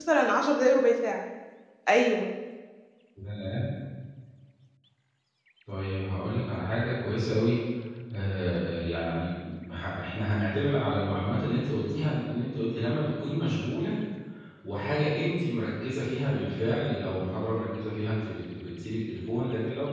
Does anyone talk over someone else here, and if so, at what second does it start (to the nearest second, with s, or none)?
none